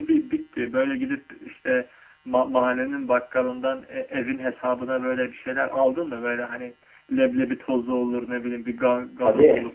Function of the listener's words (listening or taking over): taking over